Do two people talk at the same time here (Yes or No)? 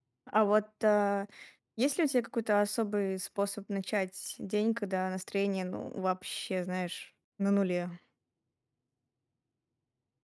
No